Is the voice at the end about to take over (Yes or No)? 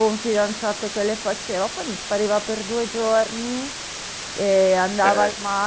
No